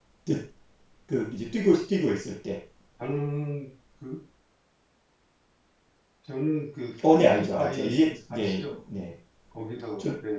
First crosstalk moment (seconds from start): 7 s

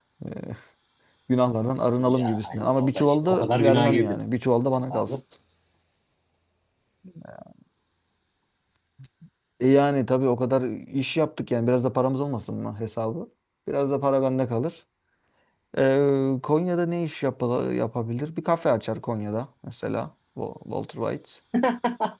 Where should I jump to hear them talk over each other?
2 s

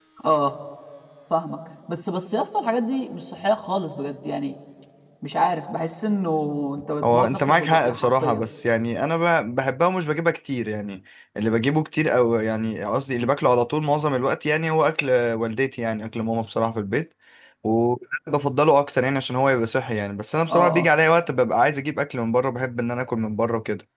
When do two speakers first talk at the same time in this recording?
7 s

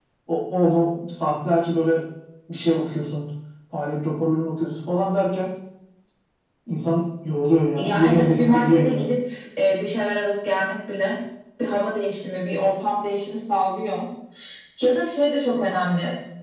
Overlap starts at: 8 s

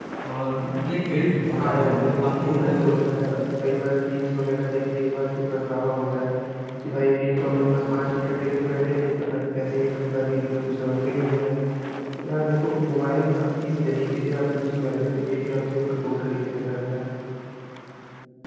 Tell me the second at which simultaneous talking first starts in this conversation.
2 s

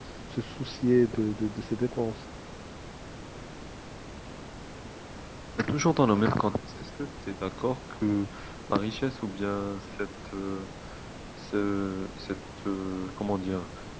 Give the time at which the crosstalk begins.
none

